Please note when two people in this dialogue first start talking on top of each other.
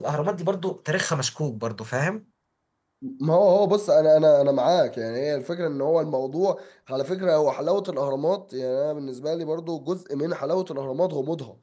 none

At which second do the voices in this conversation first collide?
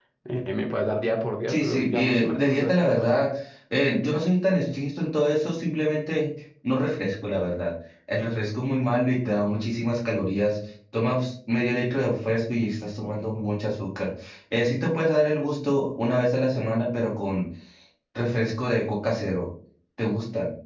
1.5 s

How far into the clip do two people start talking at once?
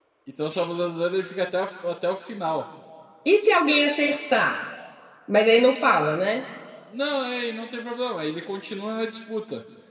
none

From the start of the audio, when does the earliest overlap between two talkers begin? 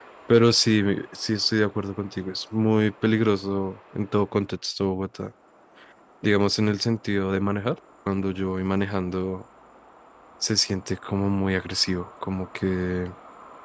none

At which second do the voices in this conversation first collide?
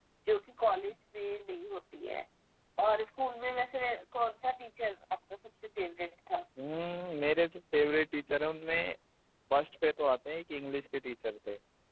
none

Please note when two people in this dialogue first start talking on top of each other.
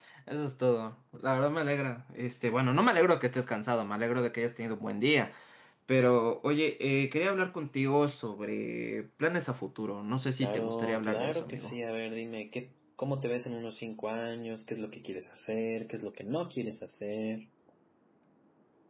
10.4 s

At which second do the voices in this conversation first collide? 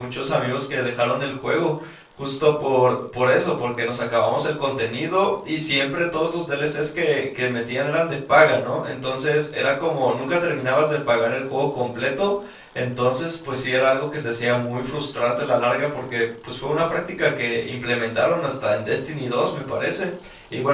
none

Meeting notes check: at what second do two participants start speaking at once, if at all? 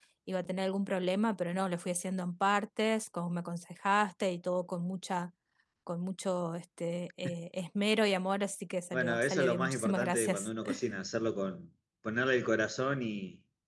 8.9 s

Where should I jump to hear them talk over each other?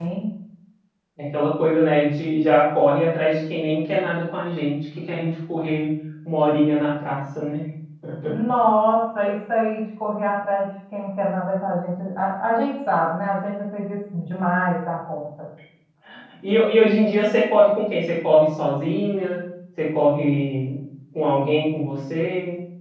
none

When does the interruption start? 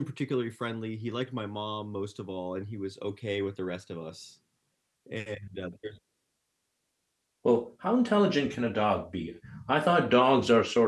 none

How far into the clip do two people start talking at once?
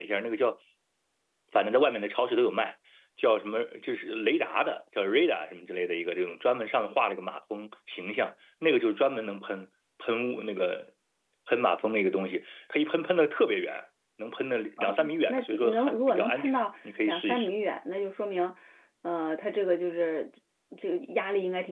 14.8 s

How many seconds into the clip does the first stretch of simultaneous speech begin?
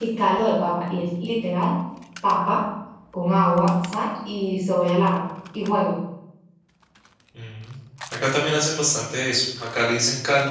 none

